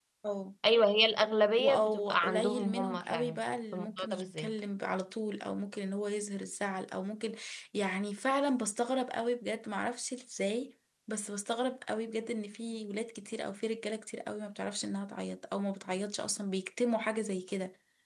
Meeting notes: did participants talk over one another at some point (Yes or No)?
Yes